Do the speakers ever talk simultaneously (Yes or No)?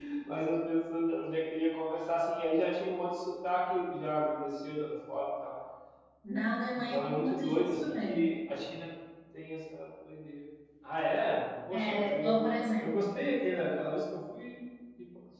Yes